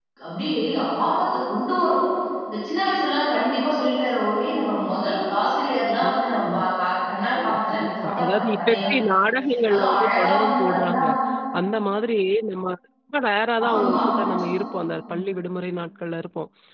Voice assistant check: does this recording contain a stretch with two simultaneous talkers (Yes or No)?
Yes